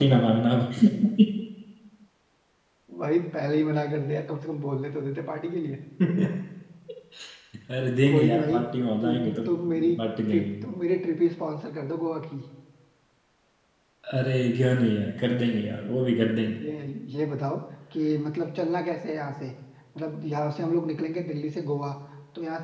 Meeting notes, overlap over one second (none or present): none